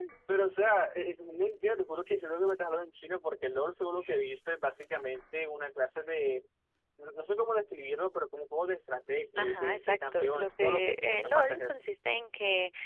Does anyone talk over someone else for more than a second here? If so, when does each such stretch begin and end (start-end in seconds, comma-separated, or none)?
9.4-11.8